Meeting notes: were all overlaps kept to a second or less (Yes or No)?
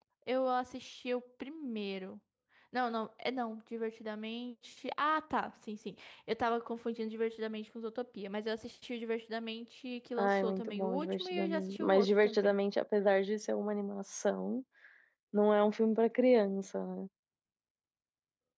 No